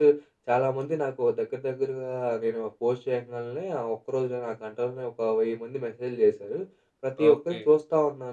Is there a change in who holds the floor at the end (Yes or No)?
No